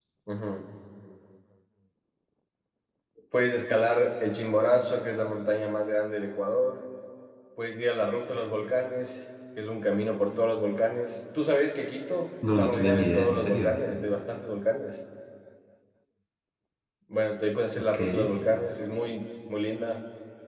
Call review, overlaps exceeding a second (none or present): present